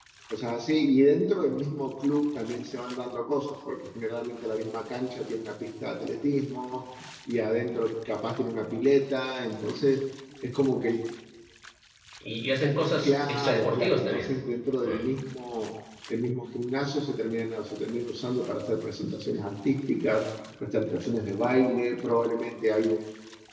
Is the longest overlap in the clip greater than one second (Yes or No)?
Yes